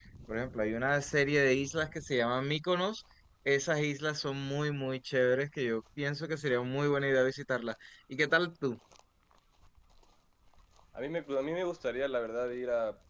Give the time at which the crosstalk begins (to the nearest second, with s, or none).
none